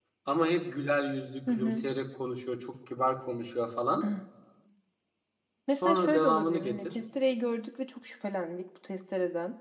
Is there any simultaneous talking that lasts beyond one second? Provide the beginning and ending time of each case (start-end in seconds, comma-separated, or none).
5.8-7.0